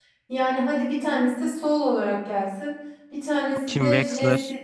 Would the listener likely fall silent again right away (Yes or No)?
Yes